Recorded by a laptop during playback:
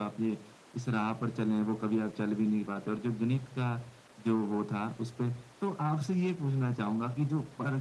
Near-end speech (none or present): none